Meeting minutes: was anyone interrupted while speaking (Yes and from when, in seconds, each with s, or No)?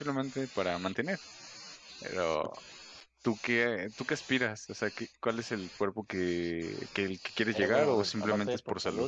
Yes, from 7.5 s